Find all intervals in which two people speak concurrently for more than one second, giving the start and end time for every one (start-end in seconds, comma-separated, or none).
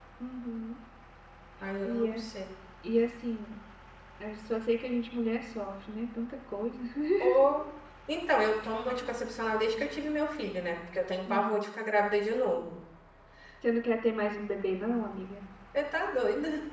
none